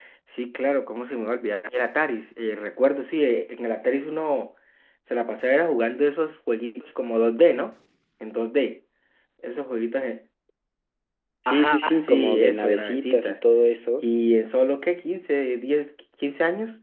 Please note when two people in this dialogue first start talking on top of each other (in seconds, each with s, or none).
11.5 s